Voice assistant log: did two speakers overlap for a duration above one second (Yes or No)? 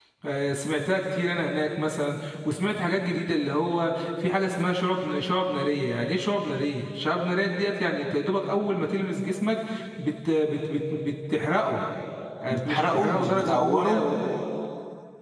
Yes